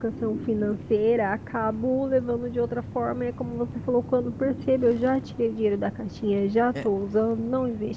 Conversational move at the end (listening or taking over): listening